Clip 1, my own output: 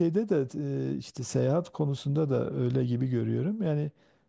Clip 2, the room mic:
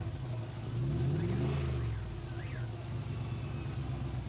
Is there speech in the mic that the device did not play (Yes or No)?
No